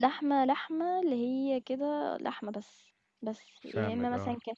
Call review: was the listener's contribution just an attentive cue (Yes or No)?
Yes